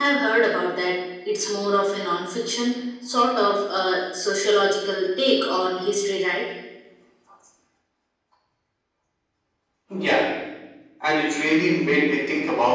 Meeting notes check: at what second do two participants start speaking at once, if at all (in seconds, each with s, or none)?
none